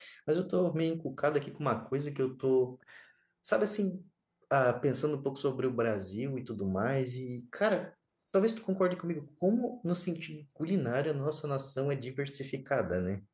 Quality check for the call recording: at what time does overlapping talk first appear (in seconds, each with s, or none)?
none